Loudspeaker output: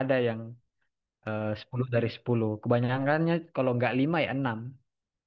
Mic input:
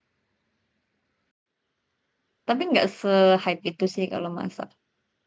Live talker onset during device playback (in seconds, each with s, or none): 2.5 s